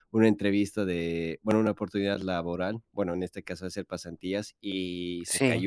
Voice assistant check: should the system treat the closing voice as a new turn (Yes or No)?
No